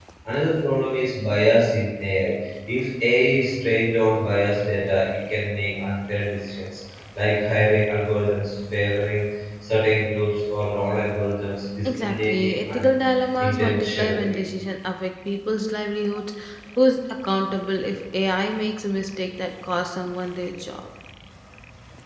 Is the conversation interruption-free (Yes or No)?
No